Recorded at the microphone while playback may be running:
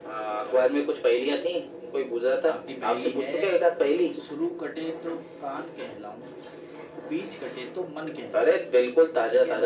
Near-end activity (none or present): present